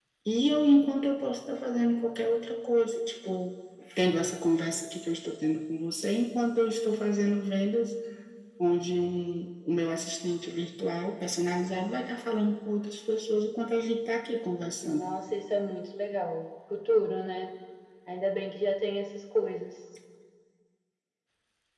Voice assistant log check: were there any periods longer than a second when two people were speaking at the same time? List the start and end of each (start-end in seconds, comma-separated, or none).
none